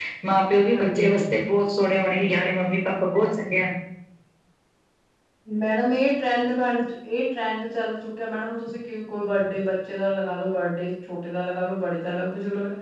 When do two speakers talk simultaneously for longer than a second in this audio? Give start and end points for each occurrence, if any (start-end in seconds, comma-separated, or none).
none